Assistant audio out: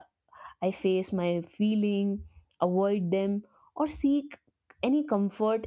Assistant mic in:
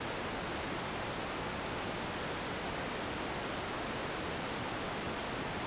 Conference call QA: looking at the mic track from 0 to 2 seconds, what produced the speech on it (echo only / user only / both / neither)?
neither